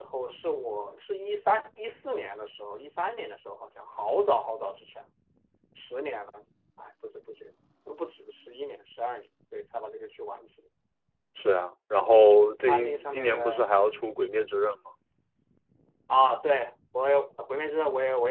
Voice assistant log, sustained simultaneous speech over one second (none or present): present